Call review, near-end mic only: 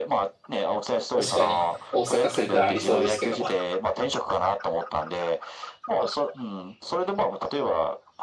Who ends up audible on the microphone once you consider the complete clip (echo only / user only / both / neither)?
both